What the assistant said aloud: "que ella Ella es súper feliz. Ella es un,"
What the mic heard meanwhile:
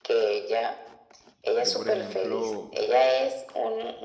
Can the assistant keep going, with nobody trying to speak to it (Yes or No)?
No